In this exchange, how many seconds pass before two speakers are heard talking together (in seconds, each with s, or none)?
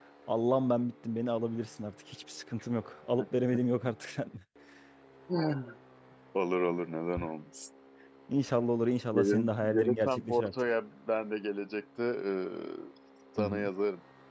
9.1 s